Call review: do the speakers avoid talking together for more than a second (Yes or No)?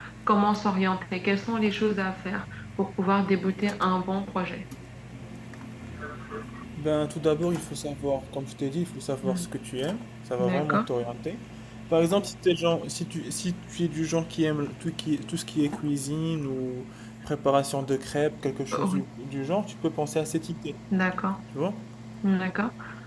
Yes